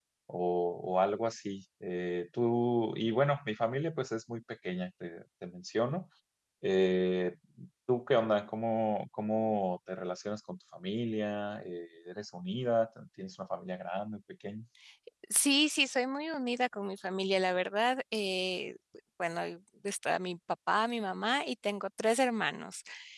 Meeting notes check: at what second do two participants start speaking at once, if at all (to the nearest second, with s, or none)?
none